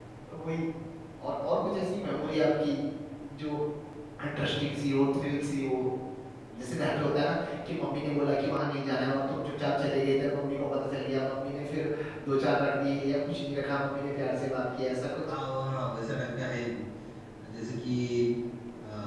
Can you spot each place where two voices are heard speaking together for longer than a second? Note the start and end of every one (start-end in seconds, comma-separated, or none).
none